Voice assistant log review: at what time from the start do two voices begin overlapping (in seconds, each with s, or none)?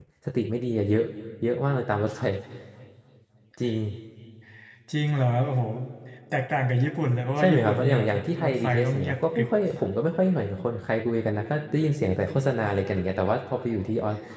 7.4 s